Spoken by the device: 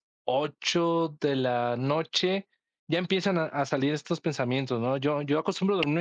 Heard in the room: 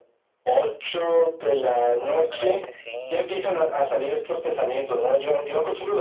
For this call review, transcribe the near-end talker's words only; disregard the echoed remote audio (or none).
posiblemente sí.